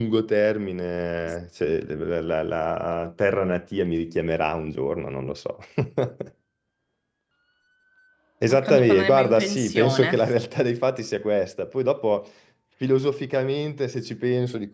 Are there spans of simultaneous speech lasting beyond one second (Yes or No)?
Yes